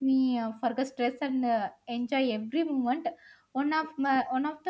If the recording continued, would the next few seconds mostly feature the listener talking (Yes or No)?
No